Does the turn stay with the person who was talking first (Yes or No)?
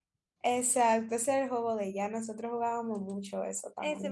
No